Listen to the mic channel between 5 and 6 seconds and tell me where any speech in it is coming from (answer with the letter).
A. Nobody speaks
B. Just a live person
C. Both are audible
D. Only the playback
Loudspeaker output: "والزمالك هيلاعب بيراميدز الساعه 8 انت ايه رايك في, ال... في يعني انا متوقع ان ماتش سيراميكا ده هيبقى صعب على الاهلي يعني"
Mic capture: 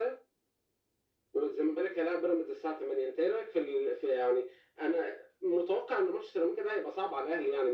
D